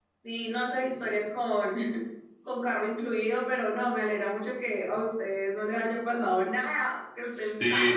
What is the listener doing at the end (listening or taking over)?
taking over